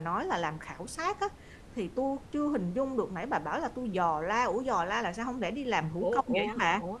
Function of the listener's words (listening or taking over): taking over